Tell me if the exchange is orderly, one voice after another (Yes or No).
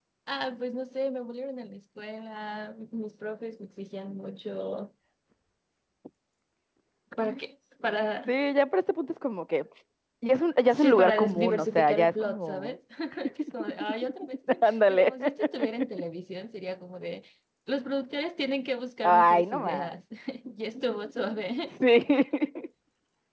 No